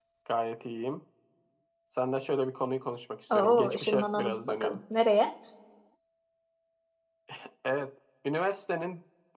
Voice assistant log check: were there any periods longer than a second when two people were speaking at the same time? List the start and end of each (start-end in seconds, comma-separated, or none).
3.3-4.8